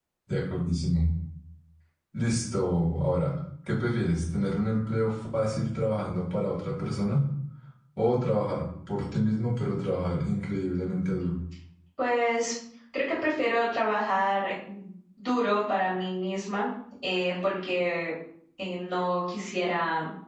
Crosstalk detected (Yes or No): No